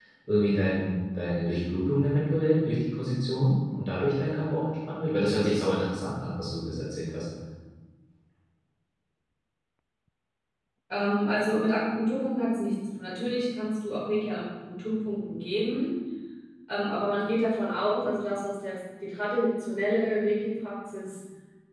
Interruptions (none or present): none